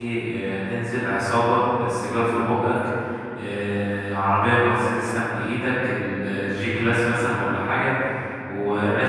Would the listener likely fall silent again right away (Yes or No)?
Yes